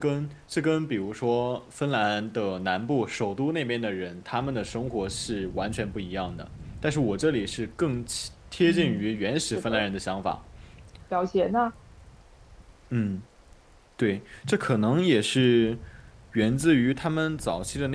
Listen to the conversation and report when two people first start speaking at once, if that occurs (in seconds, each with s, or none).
8.6 s